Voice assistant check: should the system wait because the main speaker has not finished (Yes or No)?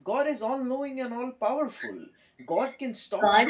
No